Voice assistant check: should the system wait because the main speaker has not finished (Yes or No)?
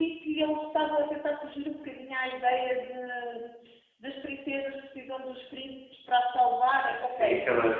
No